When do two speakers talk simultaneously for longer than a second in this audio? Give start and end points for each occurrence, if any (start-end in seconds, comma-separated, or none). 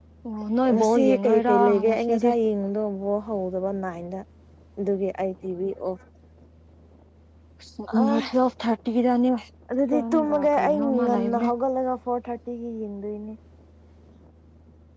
0.7-2.3, 9.9-11.5